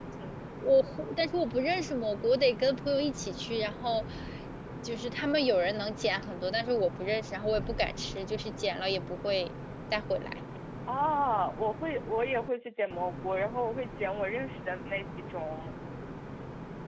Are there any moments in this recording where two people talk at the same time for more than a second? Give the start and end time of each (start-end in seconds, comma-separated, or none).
none